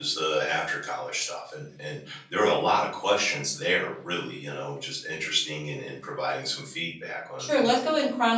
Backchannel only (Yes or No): No